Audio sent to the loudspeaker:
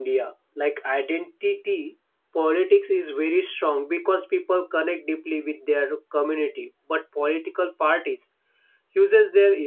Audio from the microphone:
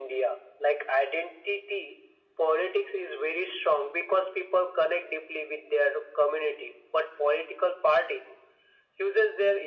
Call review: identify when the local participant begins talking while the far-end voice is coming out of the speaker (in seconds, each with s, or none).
none